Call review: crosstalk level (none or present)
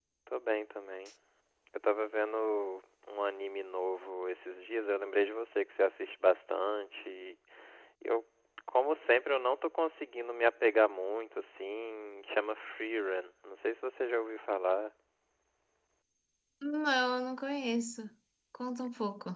none